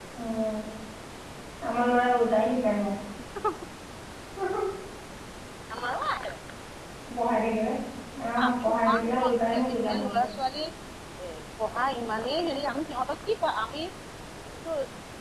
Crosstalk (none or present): present